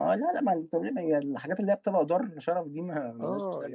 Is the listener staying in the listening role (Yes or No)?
No